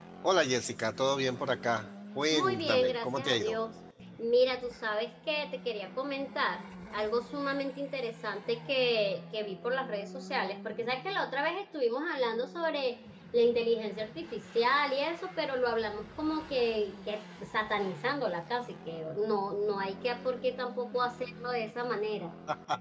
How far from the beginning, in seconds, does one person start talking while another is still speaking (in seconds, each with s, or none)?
2.3 s